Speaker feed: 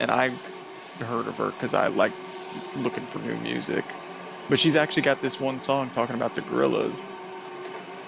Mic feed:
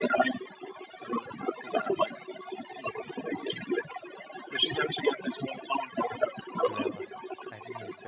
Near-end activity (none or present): present